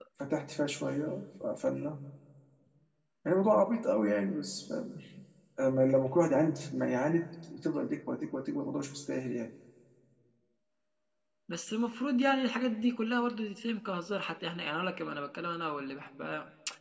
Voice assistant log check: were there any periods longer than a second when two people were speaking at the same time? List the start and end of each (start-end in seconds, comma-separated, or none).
none